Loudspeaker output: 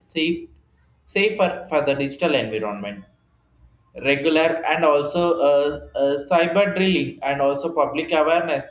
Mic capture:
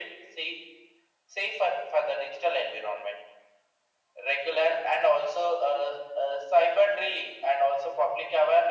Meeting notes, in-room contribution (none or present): none